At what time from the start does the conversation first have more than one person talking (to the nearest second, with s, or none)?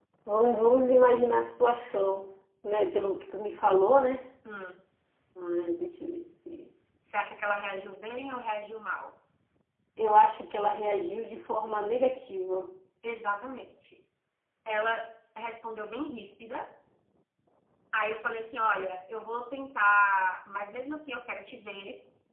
none